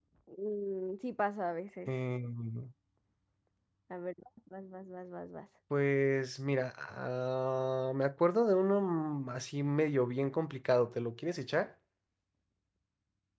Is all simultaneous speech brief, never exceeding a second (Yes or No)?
Yes